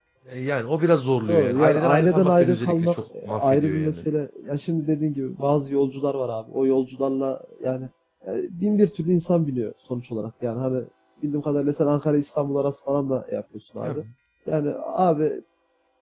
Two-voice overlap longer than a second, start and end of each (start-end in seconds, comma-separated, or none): 1.3-4.0